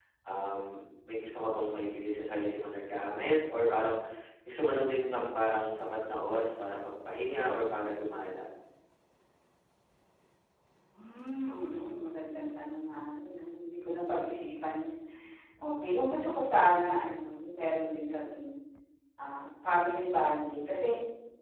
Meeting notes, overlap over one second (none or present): none